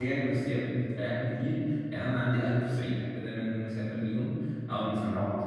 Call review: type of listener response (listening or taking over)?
listening